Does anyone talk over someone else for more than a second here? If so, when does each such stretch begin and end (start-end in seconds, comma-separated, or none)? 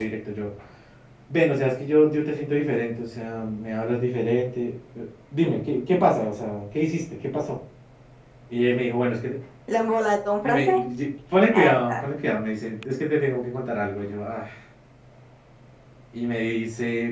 none